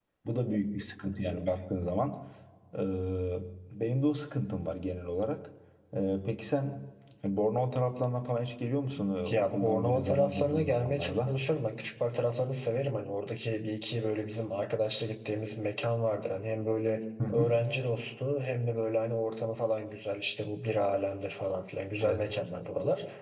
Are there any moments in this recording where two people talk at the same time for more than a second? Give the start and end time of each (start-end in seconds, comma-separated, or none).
9.3-11.3